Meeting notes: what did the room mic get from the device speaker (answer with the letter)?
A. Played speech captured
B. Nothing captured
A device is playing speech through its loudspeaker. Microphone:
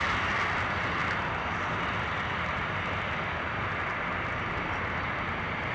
B